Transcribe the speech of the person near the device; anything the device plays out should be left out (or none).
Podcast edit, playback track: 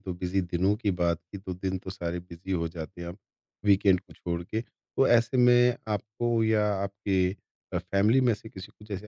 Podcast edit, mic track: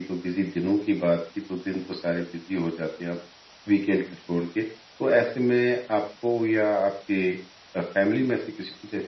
none